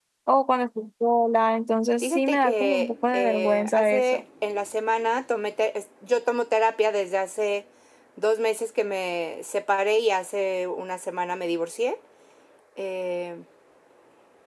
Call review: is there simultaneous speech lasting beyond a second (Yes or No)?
Yes